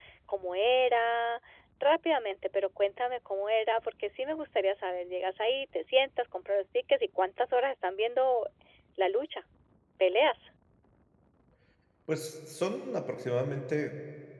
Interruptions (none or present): none